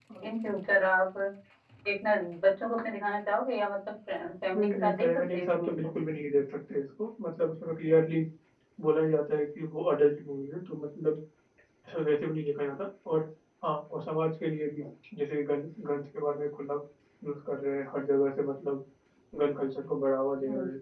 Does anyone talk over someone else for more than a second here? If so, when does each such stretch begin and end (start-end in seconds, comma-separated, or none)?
4.6-5.9